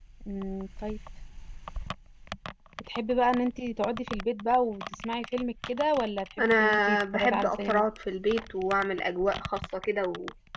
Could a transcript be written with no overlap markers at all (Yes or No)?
No